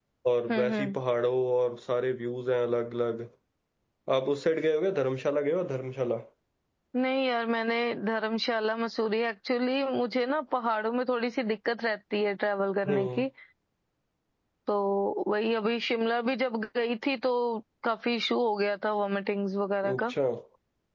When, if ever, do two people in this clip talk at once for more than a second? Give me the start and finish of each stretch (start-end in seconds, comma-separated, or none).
none